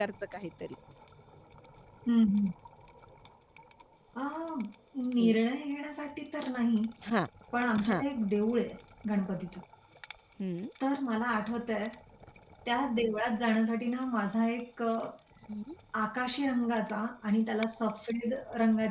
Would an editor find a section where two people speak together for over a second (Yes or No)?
No